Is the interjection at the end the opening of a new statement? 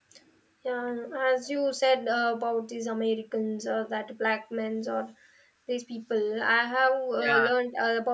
No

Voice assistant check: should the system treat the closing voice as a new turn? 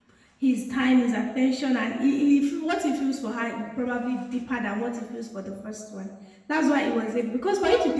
No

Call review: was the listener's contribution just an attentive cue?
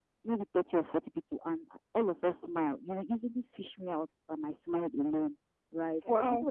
Yes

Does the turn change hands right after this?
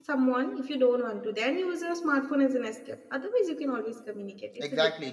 Yes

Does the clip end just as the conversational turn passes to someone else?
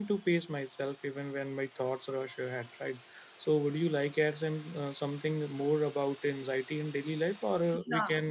No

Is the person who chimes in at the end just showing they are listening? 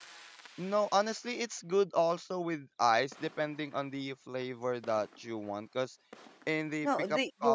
No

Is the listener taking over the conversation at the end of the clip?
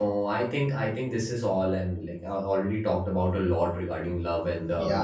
Yes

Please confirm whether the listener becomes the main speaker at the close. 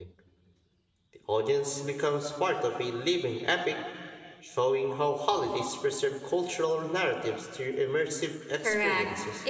Yes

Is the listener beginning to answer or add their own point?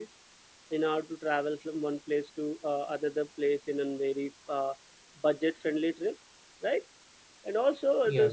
No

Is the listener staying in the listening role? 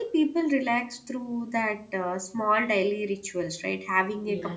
Yes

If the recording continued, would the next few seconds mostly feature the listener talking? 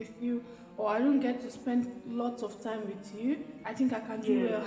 No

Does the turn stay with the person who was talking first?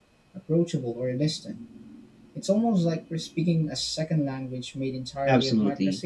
No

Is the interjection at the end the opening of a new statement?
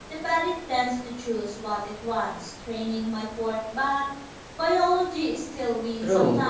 Yes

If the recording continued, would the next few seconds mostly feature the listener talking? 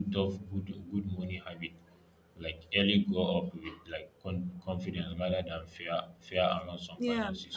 Yes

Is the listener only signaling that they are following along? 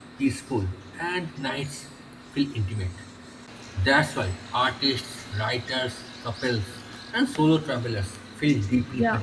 No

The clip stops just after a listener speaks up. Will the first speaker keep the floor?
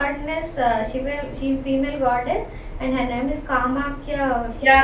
No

